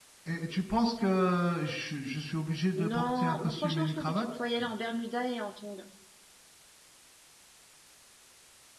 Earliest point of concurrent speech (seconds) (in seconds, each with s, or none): 2.8 s